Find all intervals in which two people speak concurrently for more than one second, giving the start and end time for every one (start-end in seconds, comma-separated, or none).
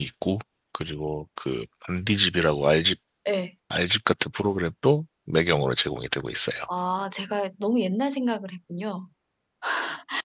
none